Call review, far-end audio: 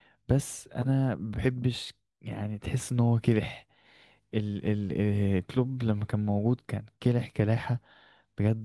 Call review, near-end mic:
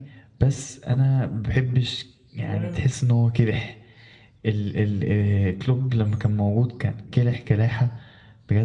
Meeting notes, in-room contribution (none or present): present